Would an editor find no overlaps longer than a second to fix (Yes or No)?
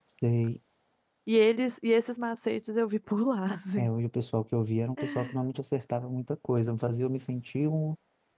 Yes